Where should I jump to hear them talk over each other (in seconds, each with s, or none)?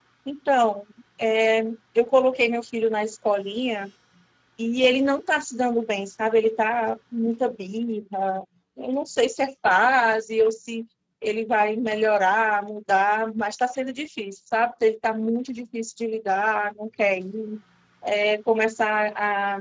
none